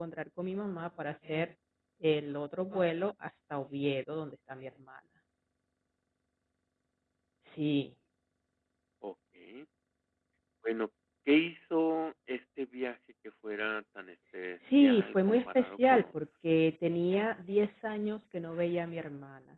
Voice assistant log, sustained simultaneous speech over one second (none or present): present